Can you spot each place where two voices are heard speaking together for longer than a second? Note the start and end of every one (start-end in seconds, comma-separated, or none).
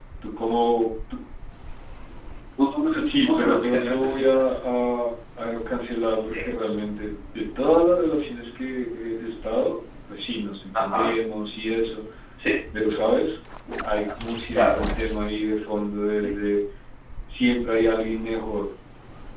2.9-4.6